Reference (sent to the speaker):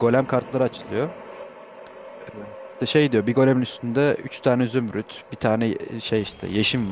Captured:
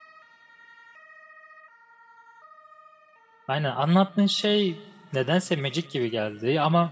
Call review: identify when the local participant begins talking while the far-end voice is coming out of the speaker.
3.5 s

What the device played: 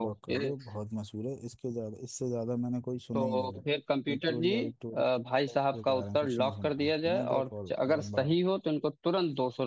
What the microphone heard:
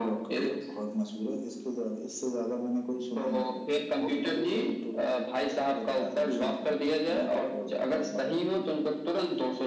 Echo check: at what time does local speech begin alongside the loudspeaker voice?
4.0 s

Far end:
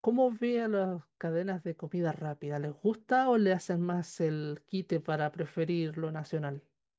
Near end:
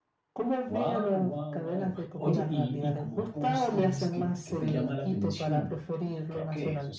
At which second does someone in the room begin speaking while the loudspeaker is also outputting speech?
0.6 s

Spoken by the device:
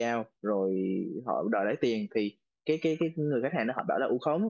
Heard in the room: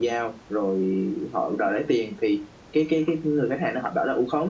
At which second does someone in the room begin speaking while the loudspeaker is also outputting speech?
none

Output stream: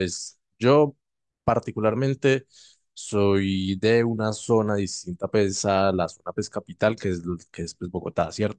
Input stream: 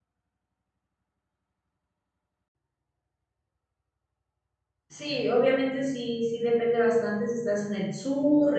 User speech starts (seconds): 4.9 s

